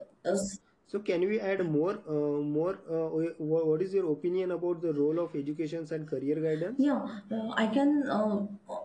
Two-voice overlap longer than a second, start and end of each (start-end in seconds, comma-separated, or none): none